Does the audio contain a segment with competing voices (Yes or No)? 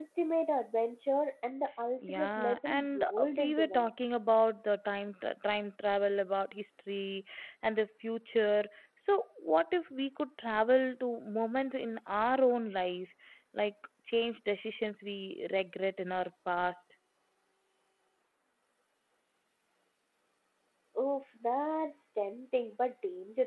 Yes